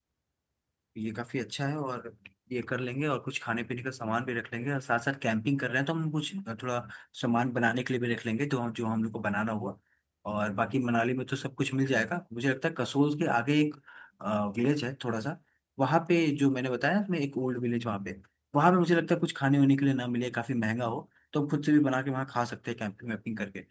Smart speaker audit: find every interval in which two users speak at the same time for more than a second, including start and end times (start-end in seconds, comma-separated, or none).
none